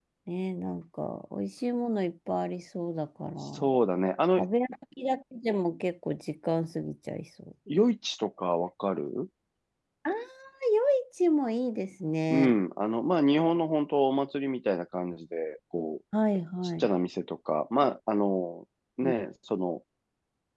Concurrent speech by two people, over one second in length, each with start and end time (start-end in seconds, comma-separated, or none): none